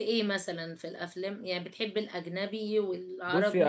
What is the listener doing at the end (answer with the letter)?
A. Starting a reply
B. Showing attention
A